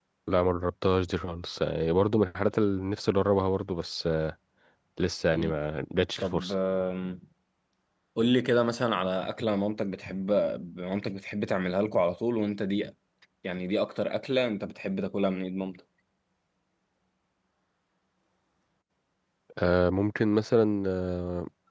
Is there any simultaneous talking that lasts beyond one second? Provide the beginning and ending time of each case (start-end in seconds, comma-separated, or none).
none